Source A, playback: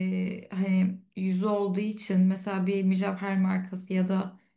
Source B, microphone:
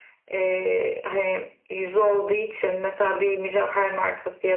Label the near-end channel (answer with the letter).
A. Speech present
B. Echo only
B